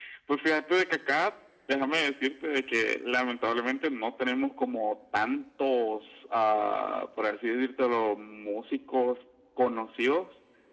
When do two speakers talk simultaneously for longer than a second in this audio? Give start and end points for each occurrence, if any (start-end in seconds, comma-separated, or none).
none